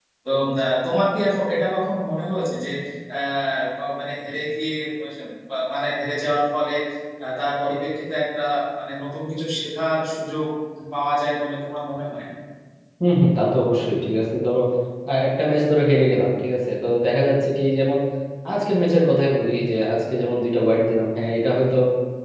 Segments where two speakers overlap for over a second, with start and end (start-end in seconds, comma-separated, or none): none